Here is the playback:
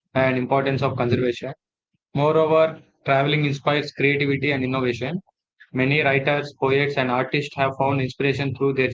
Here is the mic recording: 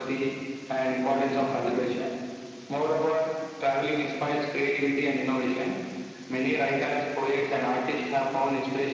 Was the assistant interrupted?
No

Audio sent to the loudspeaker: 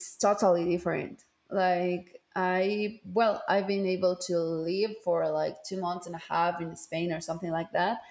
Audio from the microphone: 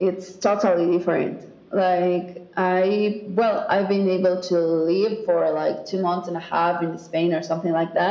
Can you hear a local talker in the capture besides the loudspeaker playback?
No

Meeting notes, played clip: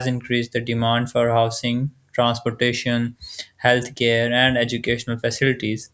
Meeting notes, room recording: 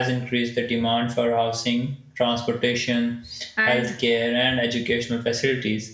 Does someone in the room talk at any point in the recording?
Yes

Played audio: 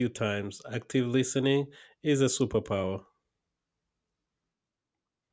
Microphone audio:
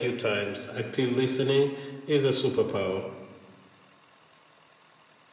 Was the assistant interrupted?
No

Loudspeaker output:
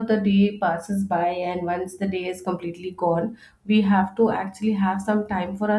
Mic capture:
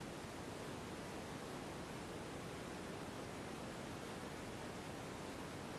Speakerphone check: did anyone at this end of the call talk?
No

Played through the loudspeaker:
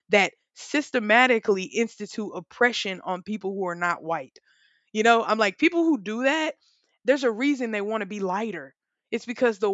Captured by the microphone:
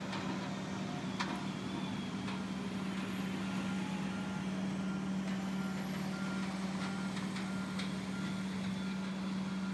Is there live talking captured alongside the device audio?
No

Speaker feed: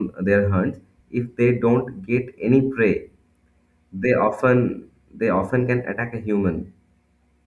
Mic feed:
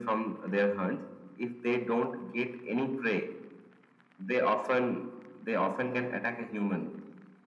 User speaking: No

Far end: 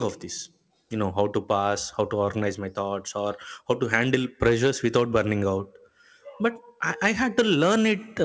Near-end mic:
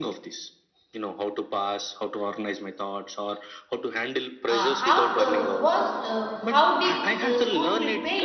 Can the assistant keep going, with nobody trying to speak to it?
No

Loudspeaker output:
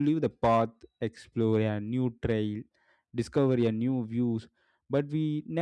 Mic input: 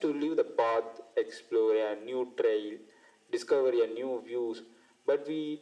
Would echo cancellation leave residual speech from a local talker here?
No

